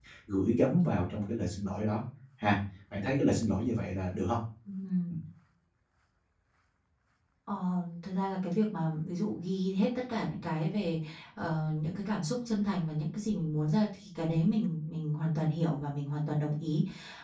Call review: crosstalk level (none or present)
none